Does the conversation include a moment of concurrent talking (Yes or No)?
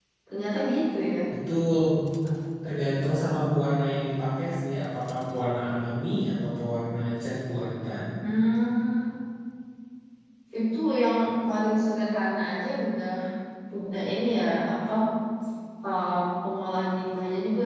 No